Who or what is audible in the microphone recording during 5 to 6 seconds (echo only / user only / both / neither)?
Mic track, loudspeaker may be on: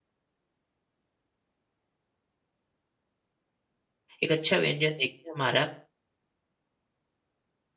user only